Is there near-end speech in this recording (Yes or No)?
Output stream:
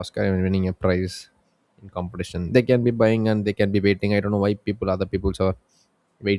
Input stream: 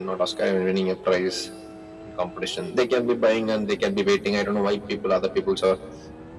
No